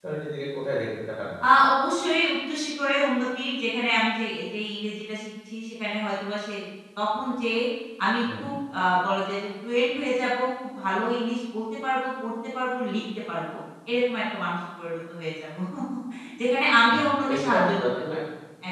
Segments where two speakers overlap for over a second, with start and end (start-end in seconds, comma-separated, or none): 16.9-18.1